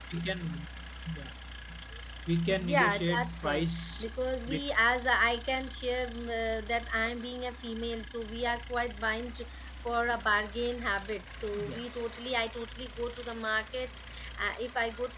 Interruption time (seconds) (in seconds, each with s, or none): 2.7 s